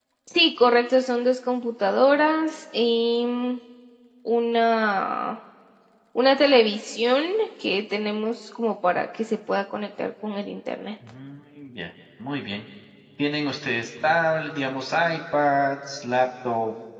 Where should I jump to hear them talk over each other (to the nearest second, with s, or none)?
none